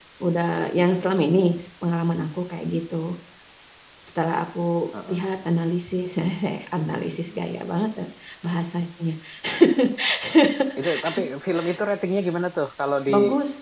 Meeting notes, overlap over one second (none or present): none